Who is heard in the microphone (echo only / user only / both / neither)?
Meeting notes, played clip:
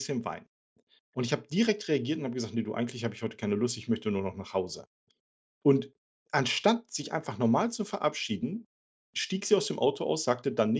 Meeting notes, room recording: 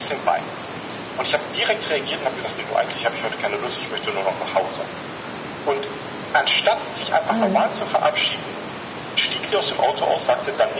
both